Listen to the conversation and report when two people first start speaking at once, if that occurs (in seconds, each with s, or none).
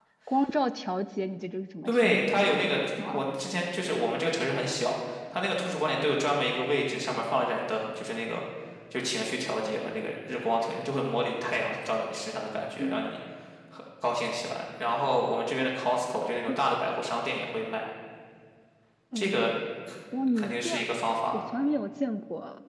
1.9 s